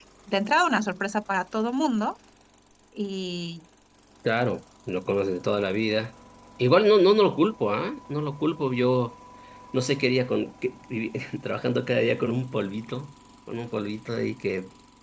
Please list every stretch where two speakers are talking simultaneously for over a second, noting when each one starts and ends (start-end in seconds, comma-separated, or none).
none